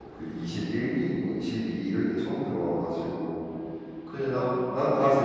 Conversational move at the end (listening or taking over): listening